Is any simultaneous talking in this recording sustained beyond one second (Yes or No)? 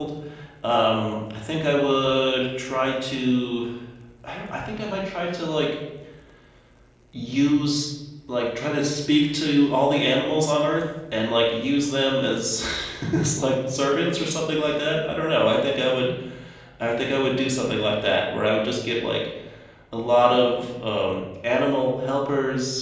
No